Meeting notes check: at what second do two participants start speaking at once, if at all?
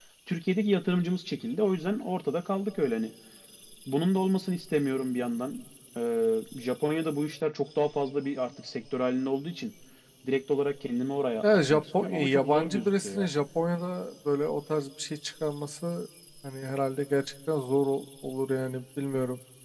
11.4 s

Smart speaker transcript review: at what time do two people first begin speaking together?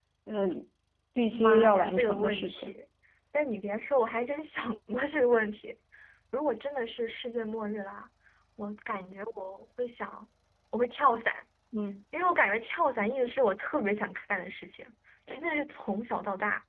1.3 s

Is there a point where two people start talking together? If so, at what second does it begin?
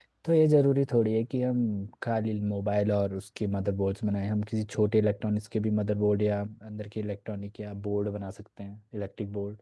none

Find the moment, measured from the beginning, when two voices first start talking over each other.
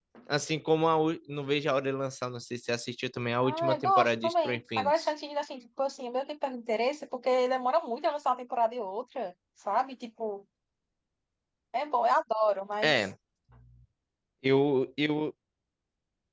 3.4 s

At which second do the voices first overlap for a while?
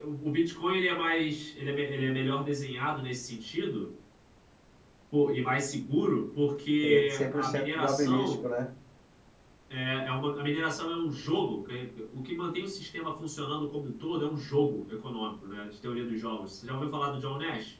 6.8 s

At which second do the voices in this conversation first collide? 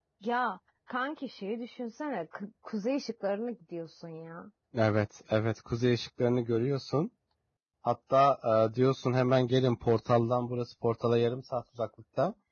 none

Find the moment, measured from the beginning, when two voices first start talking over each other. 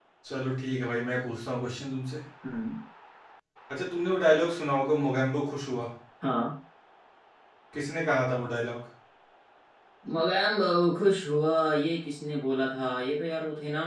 none

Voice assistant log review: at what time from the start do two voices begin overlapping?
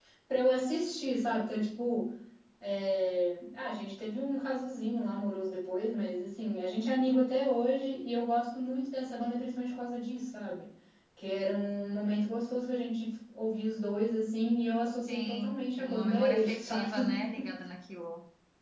15.1 s

